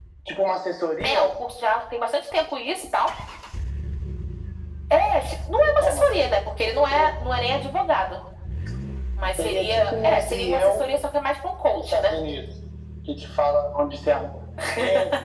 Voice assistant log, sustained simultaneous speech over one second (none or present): present